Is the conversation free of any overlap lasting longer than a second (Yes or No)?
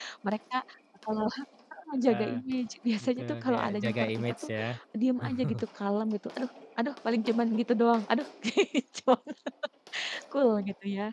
No